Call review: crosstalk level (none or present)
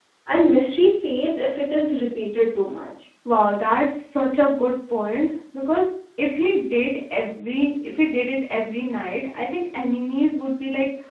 none